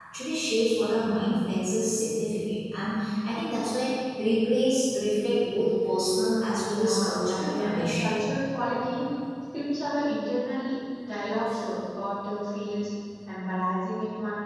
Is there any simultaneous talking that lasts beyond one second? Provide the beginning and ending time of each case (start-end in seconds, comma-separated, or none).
6.7-8.3